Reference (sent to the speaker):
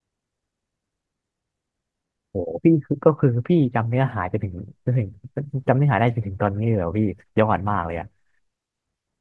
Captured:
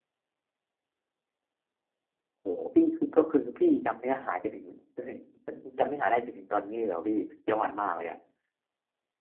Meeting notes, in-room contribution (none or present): none